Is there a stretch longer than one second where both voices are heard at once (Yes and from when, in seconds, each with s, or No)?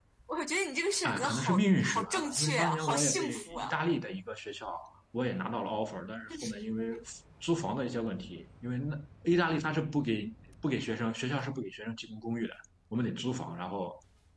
Yes, from 1.0 s